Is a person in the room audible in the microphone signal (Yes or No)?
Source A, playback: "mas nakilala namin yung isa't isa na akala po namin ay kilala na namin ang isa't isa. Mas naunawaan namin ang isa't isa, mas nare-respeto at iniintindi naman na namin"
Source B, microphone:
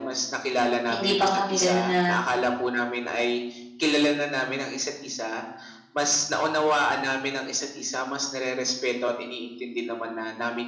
Yes